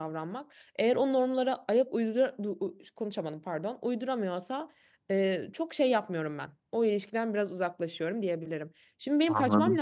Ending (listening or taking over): listening